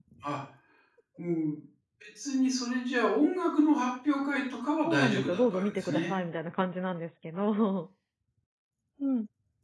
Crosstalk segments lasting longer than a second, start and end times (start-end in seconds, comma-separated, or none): 4.8-6.2